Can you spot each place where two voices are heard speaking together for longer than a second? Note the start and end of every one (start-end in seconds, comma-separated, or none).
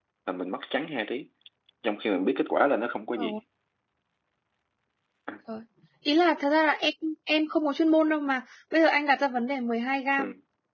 none